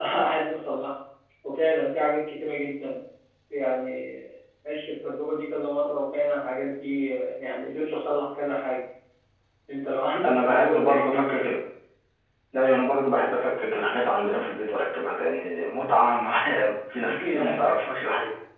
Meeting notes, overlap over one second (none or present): present